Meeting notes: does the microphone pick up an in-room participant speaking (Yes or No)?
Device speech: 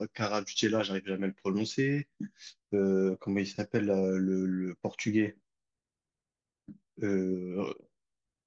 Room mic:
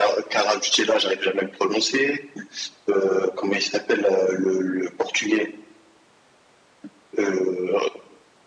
No